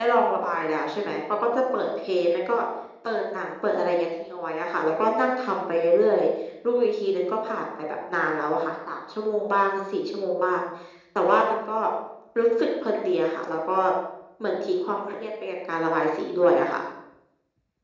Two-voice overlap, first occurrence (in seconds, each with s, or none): none